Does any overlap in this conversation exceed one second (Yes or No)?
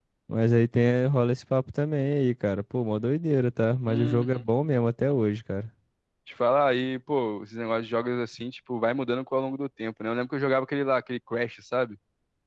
No